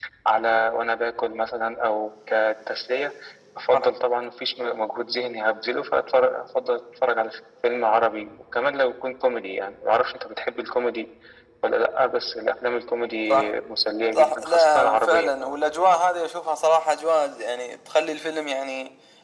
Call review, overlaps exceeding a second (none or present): present